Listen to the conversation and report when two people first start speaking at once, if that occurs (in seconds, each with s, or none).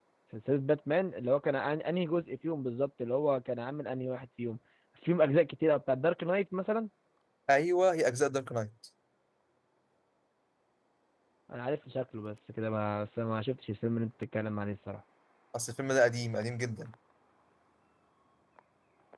none